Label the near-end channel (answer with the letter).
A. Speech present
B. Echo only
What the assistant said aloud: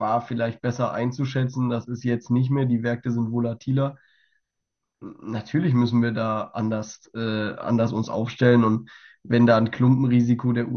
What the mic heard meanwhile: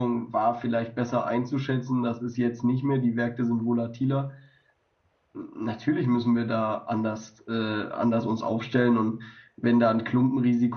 B